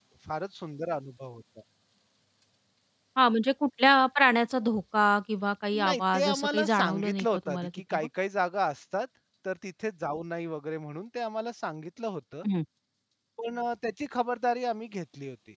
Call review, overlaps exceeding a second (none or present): present